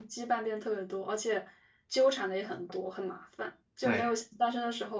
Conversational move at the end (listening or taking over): listening